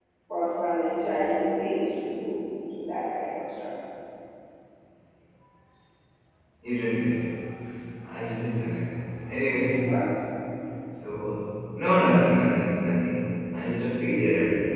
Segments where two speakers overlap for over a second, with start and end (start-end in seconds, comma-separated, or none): none